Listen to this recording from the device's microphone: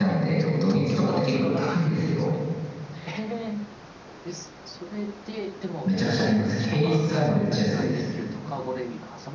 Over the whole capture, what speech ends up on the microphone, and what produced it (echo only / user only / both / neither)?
both